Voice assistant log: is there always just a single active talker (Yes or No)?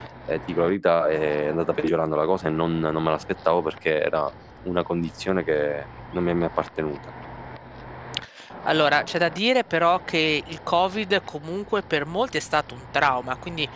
Yes